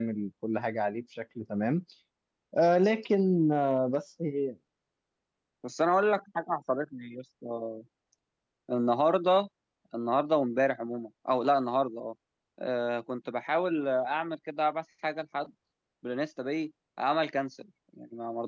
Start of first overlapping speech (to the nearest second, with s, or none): none